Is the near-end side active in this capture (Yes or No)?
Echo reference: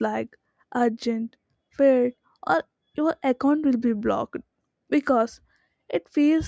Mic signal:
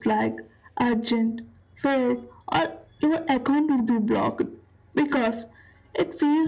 No